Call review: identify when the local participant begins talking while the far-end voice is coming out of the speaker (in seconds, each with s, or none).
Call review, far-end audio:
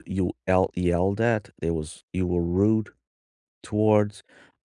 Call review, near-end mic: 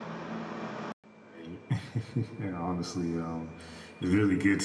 1.4 s